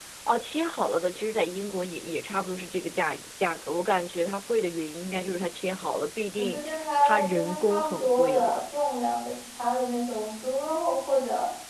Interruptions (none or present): present